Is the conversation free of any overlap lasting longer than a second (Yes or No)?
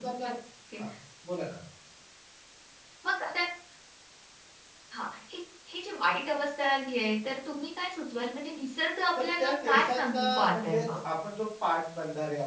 No